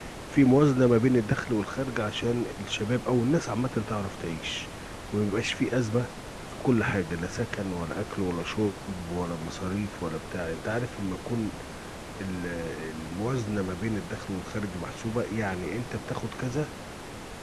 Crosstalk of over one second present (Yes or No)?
No